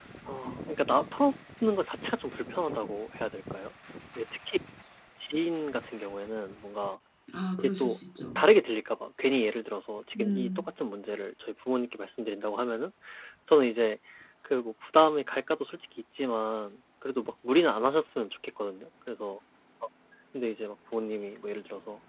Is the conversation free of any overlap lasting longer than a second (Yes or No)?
Yes